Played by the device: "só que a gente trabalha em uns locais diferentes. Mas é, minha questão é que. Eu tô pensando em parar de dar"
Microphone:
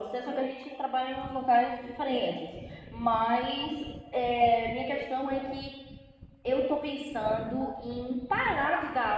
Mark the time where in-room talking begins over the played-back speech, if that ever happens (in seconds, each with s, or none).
none